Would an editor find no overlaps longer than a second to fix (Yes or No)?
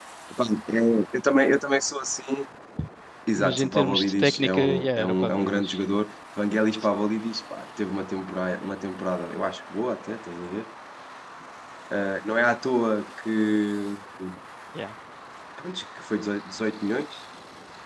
No